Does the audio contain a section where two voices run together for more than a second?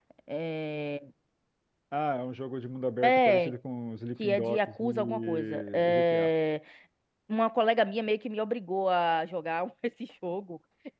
Yes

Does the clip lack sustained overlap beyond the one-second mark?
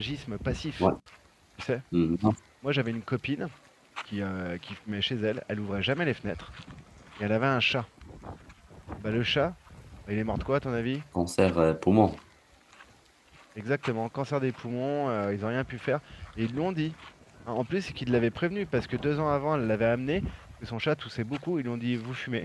Yes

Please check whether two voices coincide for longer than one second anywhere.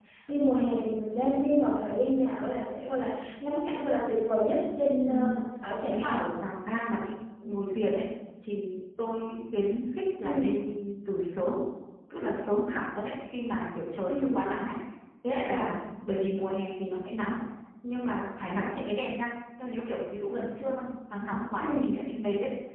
No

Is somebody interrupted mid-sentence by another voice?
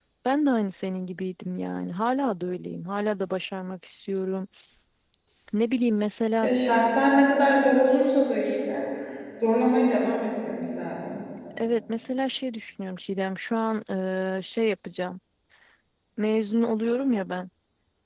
No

